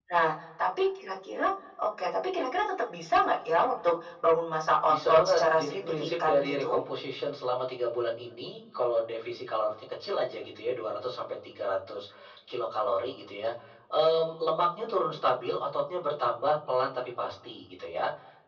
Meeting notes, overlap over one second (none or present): present